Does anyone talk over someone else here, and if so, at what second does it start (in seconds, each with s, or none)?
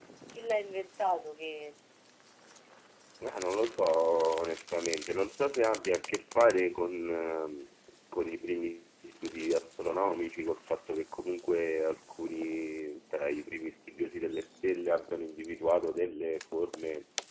none